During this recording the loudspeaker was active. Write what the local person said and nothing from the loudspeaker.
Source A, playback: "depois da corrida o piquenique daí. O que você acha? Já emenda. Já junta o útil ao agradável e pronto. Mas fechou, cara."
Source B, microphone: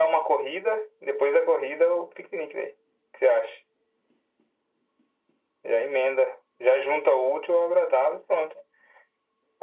none

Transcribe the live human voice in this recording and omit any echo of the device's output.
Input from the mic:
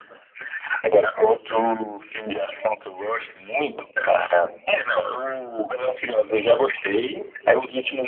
none

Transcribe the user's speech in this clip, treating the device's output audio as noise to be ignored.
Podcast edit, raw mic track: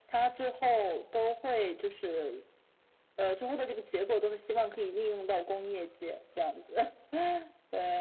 none

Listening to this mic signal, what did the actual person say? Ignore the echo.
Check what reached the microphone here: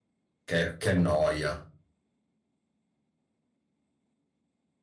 Che, che noia.

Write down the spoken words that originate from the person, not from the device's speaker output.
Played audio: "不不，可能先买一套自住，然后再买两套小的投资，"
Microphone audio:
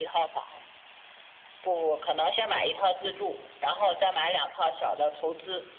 none

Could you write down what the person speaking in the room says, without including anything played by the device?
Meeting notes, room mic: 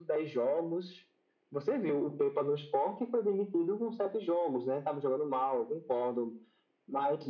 none

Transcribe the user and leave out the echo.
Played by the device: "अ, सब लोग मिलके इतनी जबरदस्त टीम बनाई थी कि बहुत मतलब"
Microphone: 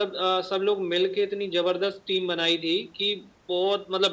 none

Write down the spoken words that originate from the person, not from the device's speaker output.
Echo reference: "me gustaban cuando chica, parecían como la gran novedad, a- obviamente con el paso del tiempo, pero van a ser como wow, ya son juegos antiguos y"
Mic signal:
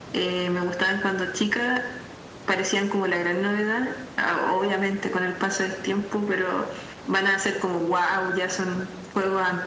none

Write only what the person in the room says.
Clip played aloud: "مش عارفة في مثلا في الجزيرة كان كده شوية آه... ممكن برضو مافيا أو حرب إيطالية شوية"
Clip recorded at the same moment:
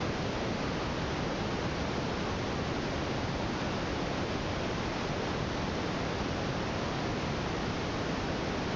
none

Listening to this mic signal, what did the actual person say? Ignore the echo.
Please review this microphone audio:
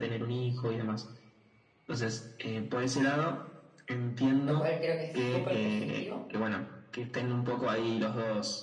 lo cual creo que es súper positivo.

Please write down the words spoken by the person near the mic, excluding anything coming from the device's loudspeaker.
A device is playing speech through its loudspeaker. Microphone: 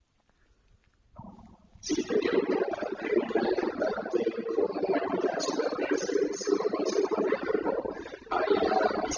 none

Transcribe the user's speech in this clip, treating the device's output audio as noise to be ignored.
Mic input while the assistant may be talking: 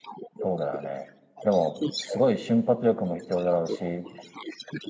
そうだよね。でも、すごい瞬発力も必要だろうし、

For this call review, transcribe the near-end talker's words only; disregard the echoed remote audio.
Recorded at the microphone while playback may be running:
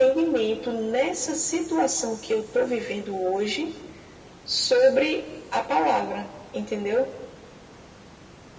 none

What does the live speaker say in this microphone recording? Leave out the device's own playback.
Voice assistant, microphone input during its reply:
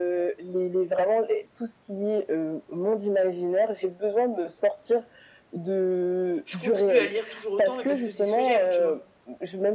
je continue à lire toujours autant, mais parce que c'est ce que j'aime, tu vois.

